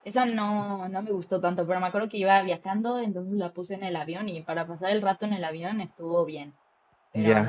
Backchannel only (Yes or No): No